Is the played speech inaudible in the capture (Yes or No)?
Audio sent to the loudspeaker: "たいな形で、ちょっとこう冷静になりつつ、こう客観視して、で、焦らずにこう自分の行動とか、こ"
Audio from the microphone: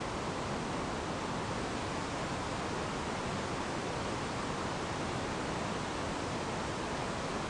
Yes